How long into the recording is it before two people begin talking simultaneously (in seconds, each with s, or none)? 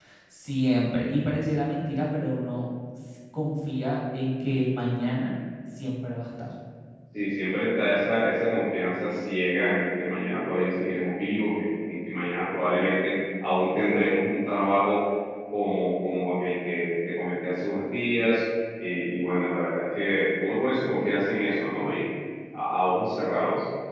none